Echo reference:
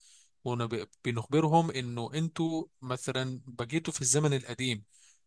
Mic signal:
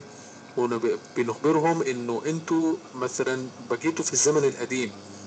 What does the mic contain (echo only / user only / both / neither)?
echo only